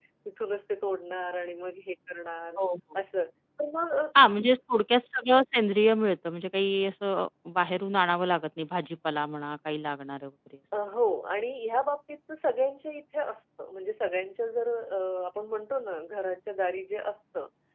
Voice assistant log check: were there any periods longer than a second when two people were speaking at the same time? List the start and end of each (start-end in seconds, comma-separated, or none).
none